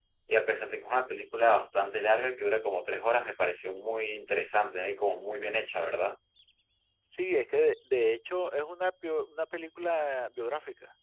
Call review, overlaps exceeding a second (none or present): none